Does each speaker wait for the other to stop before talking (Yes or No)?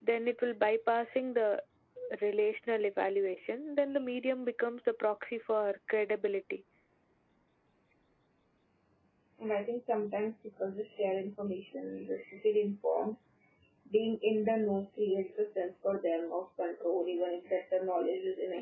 Yes